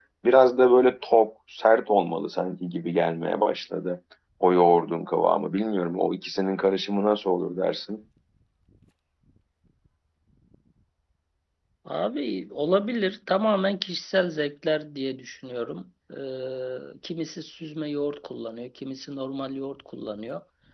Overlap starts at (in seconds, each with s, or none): none